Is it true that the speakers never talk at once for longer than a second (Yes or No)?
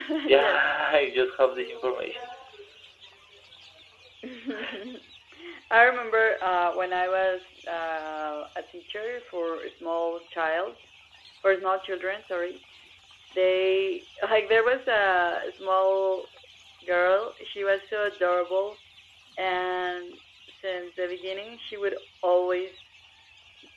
Yes